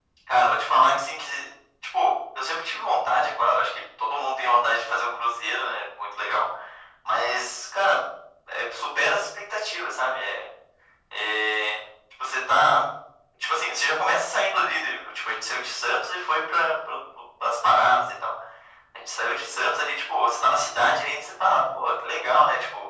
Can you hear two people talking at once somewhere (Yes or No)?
No